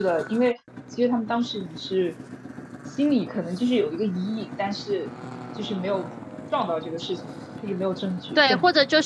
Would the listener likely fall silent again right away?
No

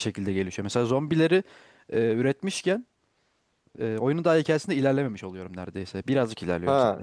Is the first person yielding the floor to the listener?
Yes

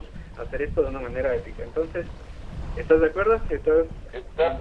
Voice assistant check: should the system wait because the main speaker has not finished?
No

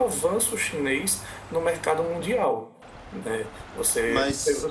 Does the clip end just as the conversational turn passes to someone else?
No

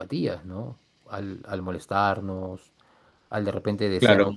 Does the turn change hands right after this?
No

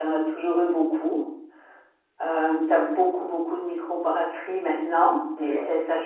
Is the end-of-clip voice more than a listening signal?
No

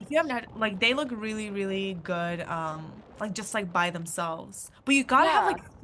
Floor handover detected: No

